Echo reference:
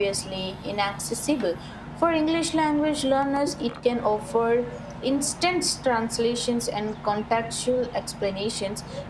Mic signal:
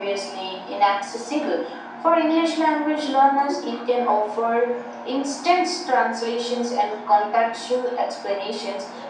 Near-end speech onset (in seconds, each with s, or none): none